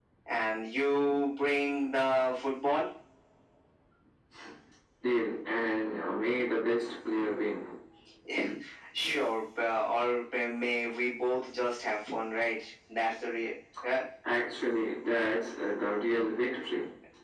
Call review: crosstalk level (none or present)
none